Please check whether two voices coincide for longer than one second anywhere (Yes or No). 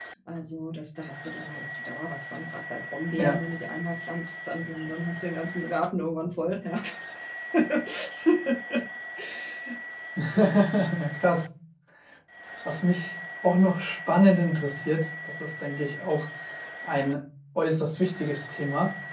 No